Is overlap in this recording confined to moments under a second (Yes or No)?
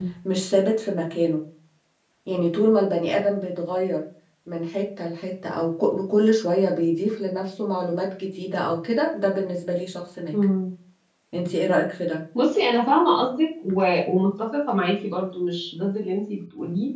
Yes